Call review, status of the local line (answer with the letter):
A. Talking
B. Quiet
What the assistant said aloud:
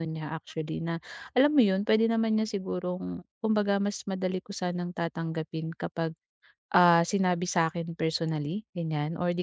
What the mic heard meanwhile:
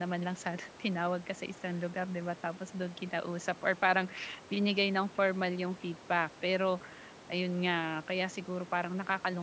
A